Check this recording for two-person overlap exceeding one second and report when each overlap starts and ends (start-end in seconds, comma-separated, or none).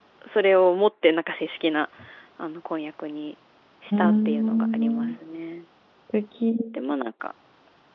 3.9-5.2